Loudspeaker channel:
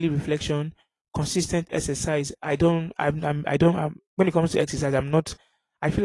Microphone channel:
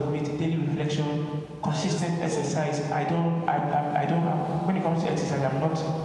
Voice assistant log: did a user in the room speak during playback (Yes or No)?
Yes